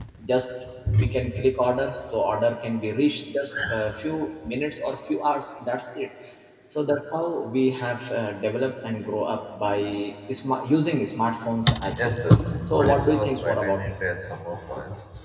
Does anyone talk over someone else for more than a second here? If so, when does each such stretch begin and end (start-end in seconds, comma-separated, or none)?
12.7-13.9